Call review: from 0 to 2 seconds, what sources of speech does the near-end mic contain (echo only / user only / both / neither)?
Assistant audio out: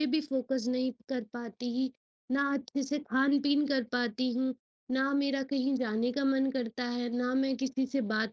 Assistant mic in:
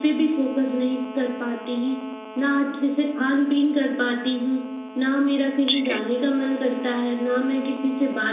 echo only